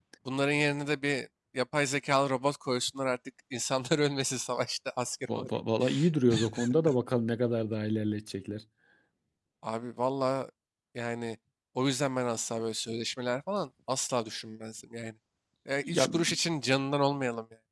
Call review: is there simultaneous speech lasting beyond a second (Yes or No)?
No